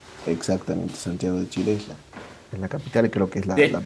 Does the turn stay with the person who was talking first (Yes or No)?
Yes